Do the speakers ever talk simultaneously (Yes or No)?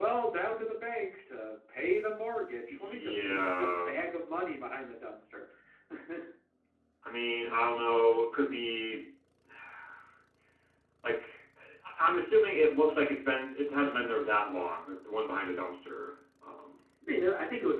Yes